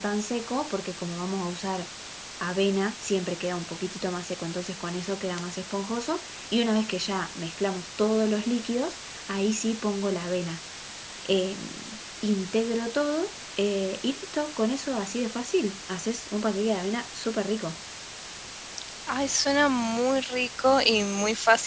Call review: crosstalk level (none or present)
none